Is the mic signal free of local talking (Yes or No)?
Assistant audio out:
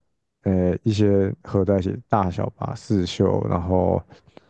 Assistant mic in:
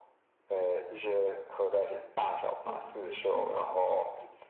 No